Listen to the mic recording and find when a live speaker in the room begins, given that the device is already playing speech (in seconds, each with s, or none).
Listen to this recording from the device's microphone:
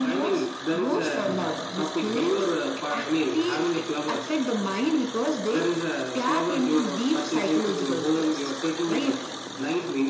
none